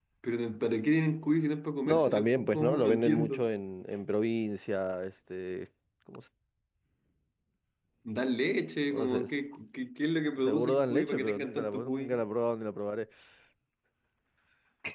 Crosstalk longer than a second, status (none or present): present